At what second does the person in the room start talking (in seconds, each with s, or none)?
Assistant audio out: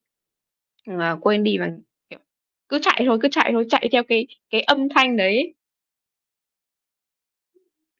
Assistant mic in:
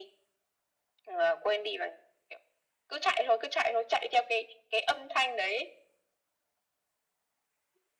none